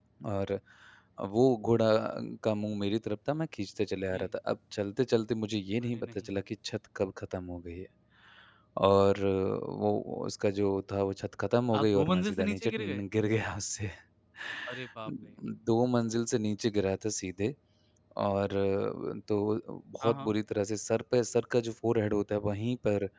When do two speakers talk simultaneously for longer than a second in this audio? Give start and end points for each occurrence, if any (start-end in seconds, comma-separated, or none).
11.7-13.0